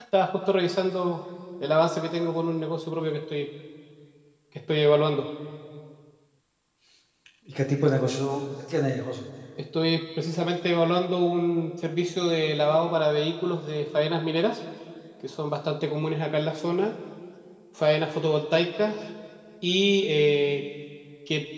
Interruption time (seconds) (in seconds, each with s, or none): none